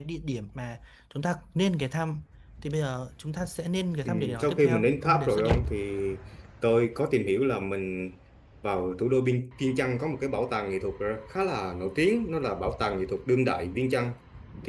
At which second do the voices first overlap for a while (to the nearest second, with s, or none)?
4 s